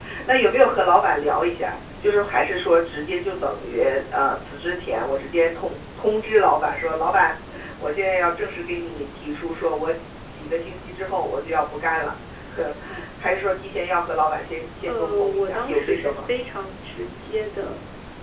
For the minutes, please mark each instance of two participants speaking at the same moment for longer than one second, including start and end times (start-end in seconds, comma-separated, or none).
14.9-16.3